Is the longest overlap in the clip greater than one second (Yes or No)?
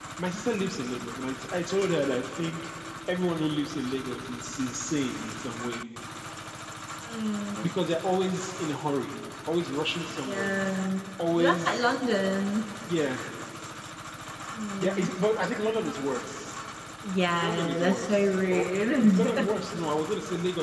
Yes